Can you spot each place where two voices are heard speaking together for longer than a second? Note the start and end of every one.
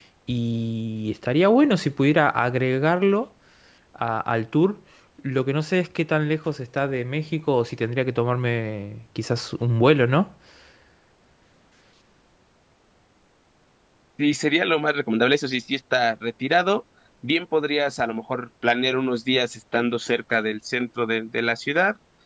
none

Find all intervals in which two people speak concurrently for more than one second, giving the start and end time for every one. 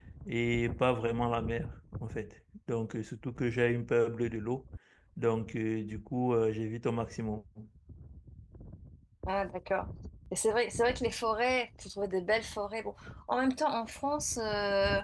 none

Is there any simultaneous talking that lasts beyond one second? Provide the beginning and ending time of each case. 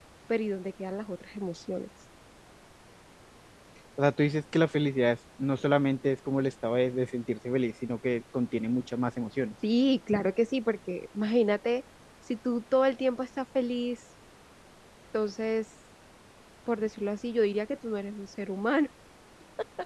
none

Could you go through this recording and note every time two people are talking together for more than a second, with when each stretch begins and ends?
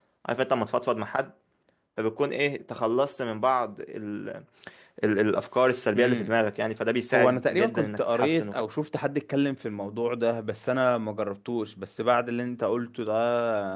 7.1-8.6

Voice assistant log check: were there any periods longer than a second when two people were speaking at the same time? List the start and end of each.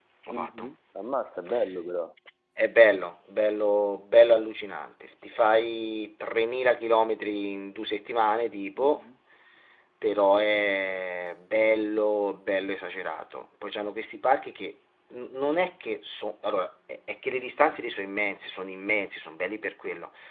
none

